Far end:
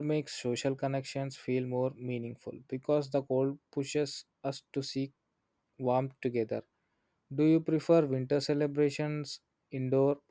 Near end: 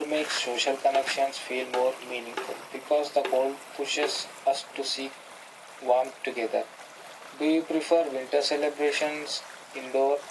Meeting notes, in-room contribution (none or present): none